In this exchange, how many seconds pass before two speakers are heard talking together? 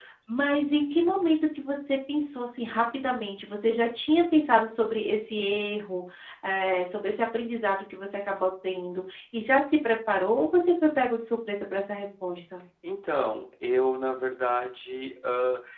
none

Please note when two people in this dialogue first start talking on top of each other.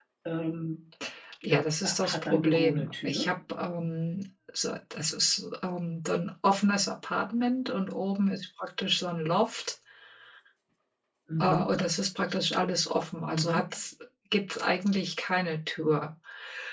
1.5 s

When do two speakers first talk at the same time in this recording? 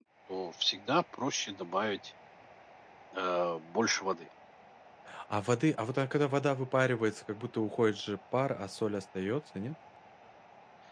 none

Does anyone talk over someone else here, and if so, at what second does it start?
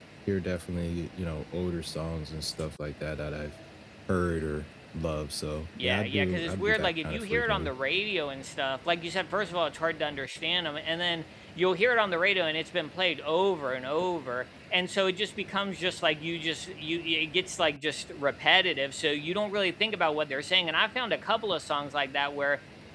5.8 s

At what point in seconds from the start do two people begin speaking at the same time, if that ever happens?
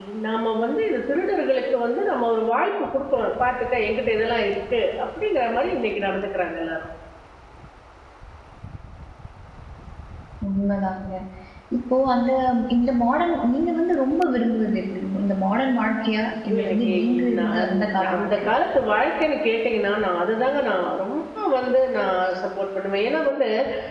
16.5 s

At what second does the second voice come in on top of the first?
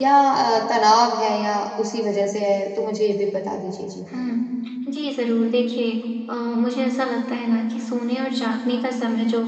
none

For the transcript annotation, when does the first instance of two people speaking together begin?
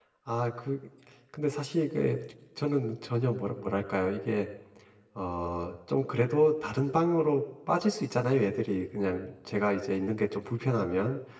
none

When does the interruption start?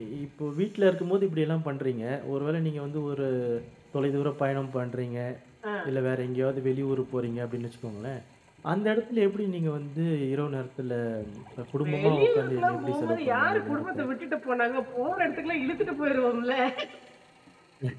11.9 s

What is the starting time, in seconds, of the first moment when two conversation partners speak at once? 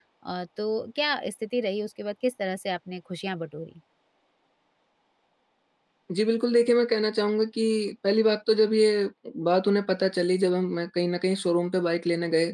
none

